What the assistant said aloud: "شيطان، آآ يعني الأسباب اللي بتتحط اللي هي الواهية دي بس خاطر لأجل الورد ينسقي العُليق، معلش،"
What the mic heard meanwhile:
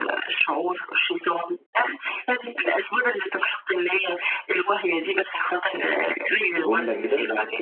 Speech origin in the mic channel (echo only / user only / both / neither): both